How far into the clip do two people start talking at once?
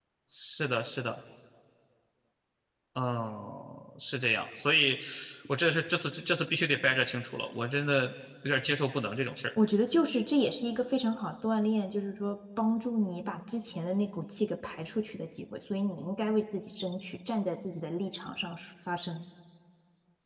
none

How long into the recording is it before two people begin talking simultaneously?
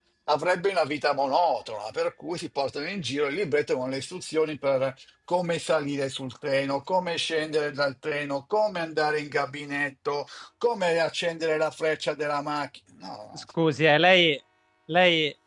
none

